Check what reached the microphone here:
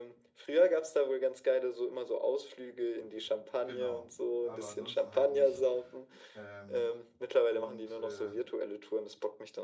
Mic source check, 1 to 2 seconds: echo only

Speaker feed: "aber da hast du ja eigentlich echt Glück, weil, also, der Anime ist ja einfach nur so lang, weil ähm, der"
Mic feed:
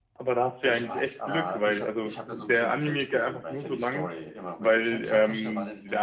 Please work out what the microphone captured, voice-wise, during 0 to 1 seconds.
both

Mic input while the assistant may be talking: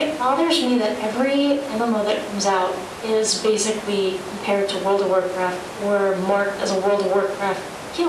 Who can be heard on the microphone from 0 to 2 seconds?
echo only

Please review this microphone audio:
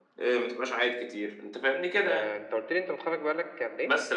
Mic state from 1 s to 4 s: both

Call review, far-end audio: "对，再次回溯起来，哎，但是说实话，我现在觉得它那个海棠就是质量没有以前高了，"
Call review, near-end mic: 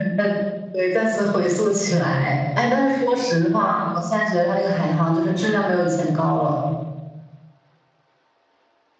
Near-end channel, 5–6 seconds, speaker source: echo only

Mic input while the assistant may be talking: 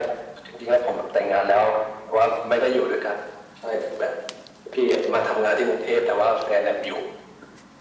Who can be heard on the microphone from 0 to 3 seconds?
echo only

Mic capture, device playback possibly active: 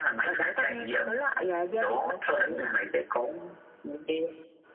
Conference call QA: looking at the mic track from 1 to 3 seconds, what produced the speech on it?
echo only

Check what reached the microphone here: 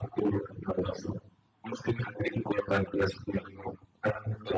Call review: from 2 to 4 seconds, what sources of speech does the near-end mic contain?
echo only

